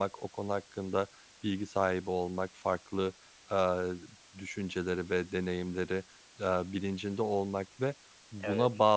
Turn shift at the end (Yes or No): No